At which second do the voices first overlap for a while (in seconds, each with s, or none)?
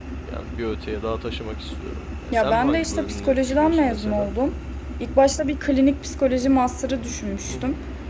2.3 s